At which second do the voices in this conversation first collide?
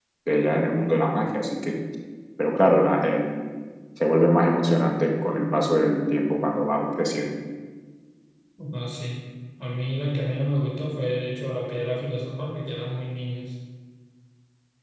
none

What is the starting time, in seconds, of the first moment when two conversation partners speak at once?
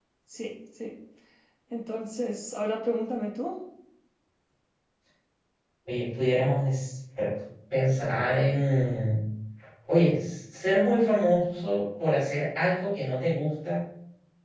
none

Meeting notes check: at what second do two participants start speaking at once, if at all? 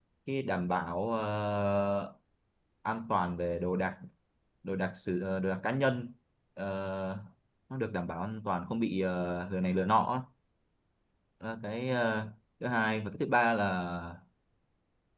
none

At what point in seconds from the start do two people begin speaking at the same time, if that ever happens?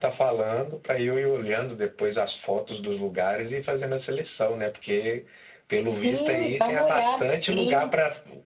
6 s

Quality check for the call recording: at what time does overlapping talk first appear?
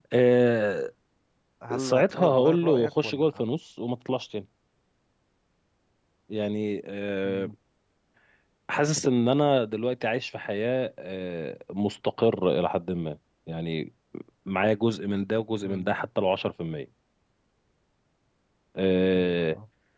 2 s

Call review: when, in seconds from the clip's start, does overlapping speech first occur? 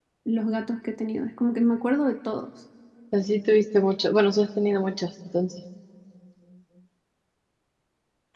none

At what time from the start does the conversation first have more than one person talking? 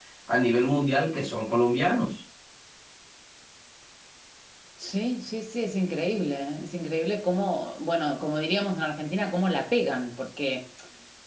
none

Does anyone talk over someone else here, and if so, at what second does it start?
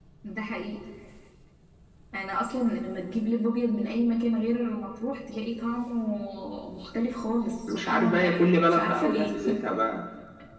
8 s

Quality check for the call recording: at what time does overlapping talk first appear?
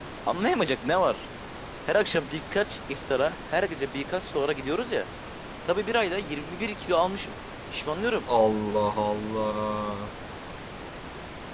none

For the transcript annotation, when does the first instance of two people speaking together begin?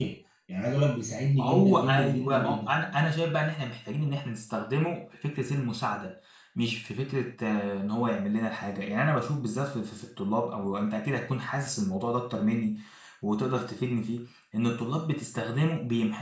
1 s

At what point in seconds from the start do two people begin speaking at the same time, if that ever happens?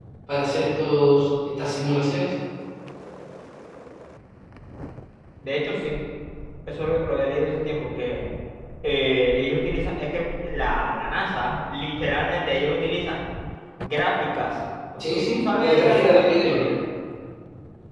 15 s

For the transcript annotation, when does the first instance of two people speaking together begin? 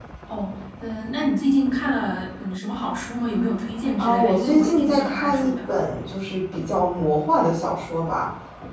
4 s

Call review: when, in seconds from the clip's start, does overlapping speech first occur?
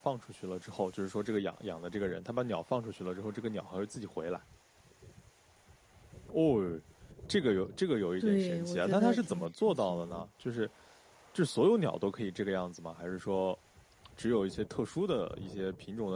8 s

